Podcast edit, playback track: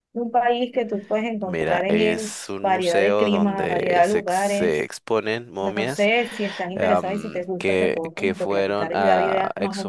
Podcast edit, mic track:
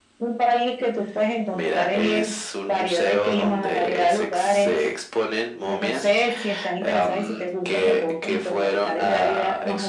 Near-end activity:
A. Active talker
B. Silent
B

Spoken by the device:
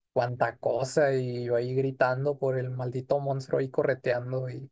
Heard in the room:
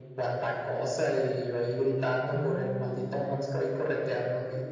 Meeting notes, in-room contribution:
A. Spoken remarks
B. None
A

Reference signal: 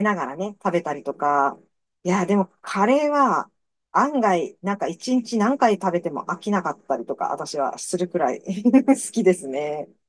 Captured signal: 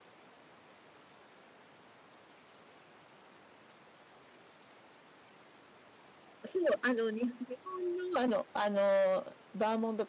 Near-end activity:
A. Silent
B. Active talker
B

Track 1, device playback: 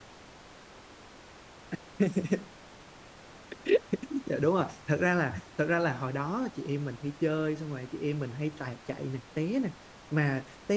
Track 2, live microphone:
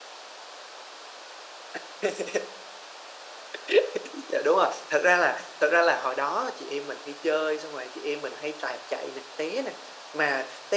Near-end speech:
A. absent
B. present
A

